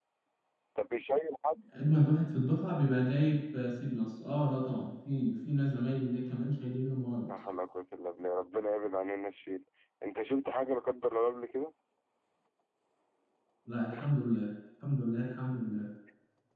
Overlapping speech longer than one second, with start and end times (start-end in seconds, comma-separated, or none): none